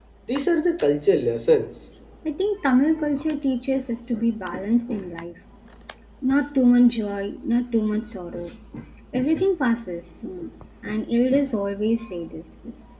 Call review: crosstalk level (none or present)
none